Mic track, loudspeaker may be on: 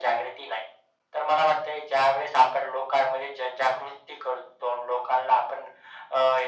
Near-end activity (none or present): none